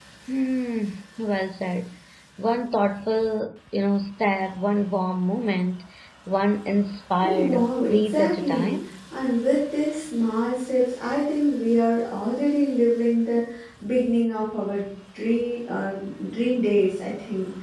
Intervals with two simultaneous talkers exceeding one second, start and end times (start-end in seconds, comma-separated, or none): 7.2-8.8